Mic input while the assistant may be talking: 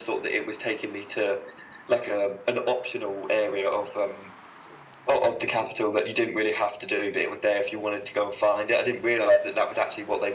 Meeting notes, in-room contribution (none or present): none